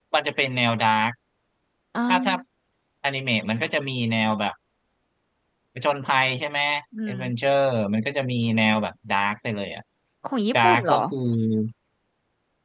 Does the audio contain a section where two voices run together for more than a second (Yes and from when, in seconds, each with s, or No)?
No